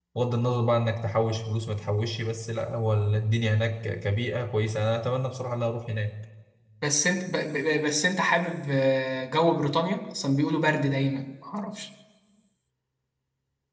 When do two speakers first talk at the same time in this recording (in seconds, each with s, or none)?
none